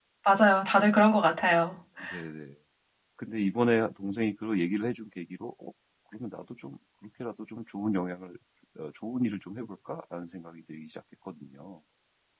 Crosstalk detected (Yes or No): No